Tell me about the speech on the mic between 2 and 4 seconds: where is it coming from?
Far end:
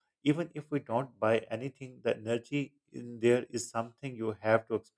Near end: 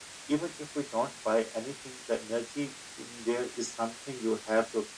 echo only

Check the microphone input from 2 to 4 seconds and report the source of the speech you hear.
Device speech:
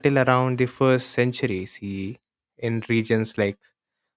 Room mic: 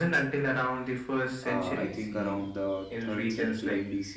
both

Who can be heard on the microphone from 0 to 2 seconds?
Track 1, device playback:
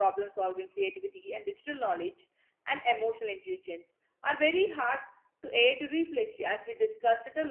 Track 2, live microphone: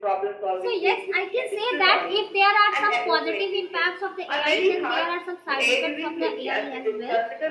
both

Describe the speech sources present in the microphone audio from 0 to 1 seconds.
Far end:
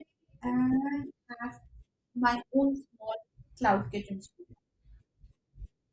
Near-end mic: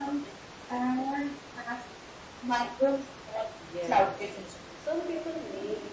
echo only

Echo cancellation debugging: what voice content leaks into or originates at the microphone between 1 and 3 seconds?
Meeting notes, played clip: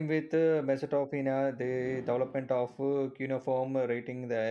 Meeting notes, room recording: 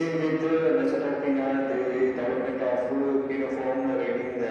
echo only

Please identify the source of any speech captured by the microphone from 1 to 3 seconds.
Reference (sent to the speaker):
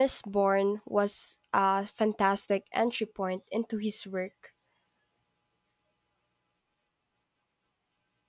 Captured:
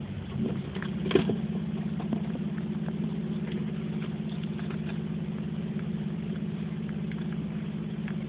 neither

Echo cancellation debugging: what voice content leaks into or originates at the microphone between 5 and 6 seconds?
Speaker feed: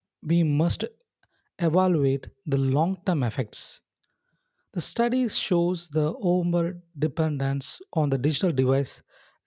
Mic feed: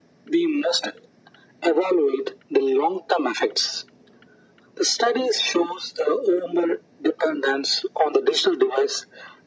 echo only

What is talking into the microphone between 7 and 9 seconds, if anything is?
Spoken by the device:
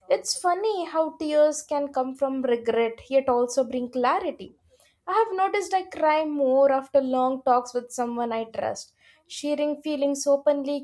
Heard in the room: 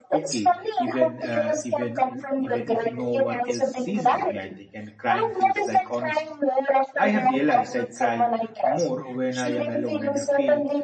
both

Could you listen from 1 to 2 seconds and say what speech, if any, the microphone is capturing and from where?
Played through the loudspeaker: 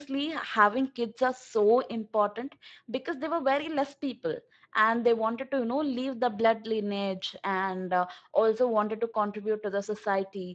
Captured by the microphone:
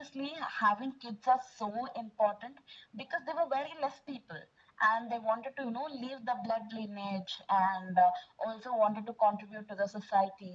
echo only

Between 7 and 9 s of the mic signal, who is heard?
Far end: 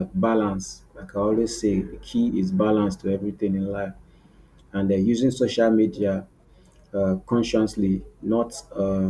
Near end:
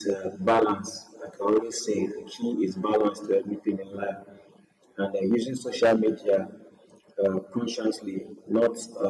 echo only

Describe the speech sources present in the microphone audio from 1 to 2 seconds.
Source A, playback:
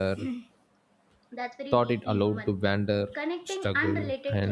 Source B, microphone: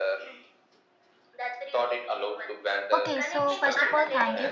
echo only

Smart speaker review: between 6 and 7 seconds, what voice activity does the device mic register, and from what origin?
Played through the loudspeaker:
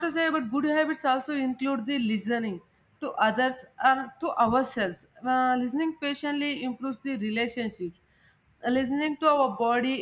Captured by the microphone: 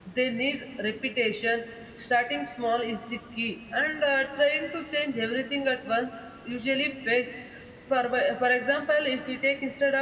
user only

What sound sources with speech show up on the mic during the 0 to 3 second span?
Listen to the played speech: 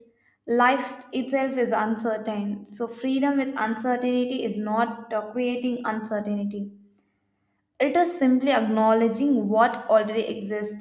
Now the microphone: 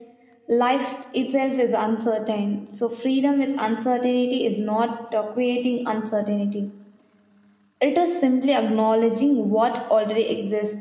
echo only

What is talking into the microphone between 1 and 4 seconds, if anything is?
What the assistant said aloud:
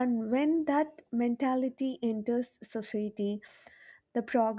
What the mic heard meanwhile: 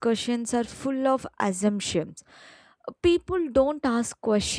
user only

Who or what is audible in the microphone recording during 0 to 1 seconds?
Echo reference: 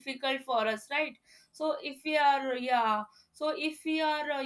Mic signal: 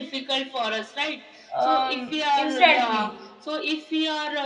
echo only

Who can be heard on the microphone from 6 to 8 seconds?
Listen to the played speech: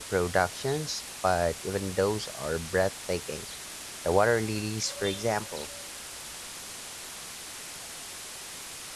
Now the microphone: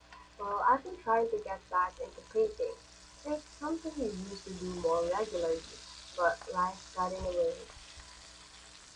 user only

